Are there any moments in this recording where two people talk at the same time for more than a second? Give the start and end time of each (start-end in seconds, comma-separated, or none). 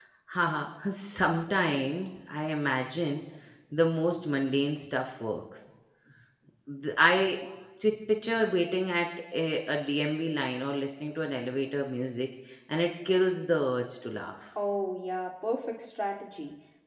none